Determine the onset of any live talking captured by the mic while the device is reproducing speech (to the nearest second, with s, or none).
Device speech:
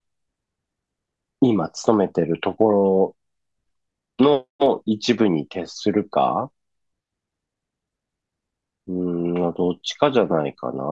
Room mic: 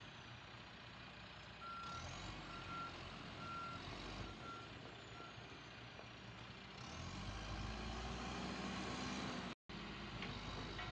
none